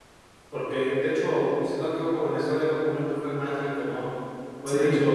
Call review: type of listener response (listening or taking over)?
listening